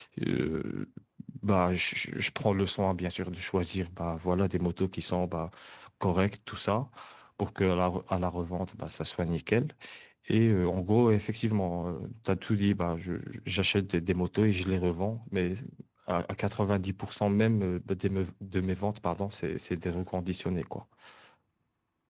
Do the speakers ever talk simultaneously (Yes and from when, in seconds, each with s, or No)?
No